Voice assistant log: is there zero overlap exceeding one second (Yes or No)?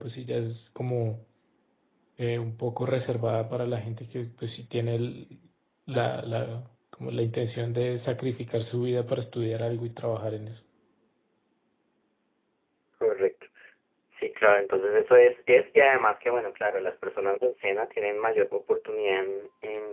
Yes